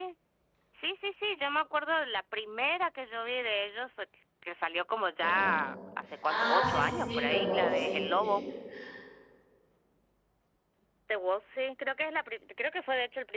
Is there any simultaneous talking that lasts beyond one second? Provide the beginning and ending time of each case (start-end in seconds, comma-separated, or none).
6.2-8.1